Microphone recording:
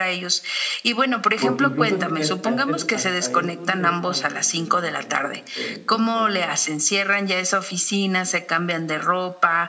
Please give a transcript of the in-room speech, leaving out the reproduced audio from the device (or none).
porque, incluso, ese a este son hasta esos detalles que de repente suceden, como por ejemplo,